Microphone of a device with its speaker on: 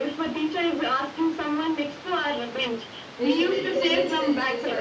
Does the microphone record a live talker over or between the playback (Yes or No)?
Yes